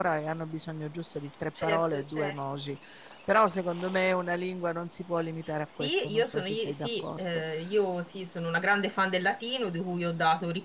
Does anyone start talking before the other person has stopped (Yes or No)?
Yes